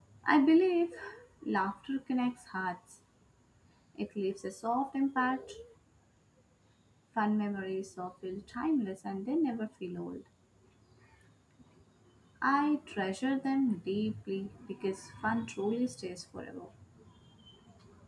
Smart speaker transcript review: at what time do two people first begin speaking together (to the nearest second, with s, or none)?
none